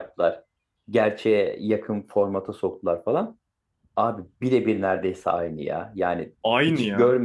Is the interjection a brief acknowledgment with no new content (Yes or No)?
Yes